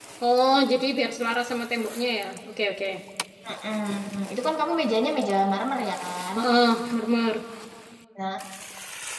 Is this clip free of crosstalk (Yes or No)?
Yes